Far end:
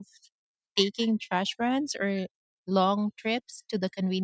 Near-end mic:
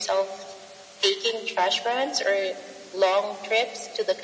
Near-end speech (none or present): none